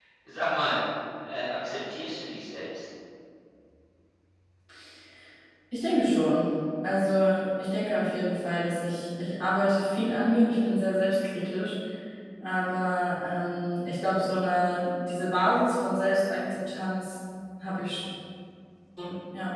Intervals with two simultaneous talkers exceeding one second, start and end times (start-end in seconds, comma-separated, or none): none